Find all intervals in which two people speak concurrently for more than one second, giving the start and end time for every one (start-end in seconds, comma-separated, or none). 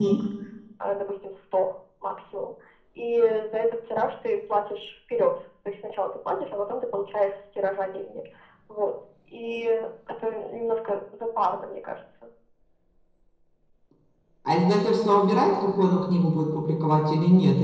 none